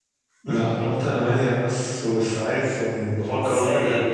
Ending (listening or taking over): taking over